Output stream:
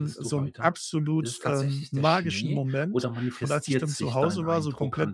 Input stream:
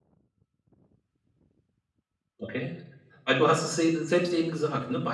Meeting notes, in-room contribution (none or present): present